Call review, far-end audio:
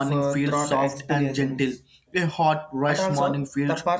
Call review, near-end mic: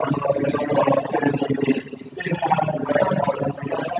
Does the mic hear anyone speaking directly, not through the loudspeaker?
No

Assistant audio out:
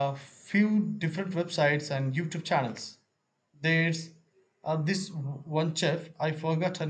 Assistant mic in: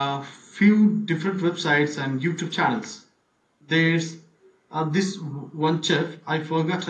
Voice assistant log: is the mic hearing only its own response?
Yes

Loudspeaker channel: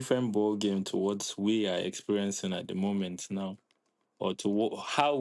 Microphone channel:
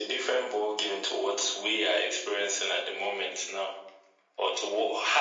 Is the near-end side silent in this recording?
Yes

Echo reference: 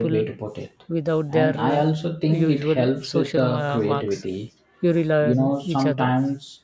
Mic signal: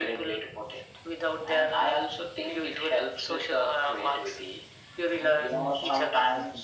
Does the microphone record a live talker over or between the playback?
Yes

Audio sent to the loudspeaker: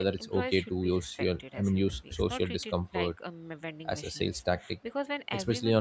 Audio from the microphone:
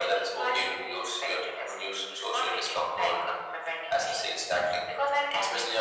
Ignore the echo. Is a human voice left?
No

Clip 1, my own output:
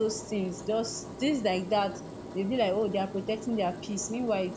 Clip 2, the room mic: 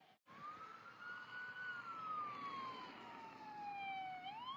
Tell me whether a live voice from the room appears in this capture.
No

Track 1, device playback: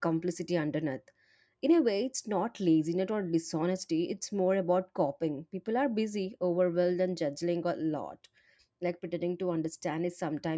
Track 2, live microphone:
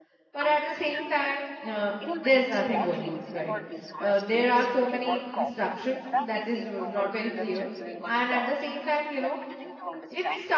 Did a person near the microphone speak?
Yes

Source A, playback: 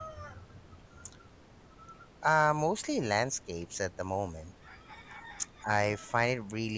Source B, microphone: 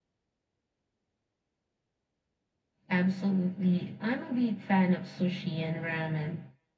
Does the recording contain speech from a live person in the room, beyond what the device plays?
Yes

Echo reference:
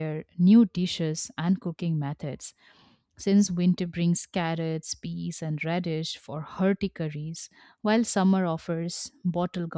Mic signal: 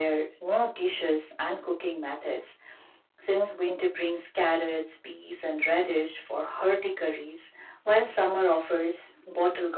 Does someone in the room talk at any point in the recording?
No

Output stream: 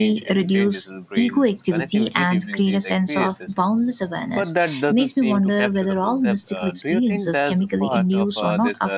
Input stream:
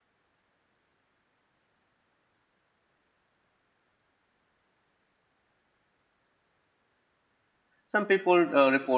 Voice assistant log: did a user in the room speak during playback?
Yes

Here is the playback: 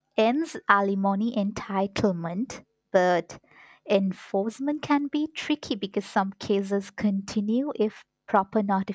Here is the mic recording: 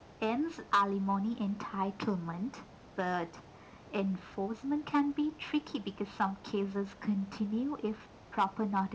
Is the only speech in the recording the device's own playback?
Yes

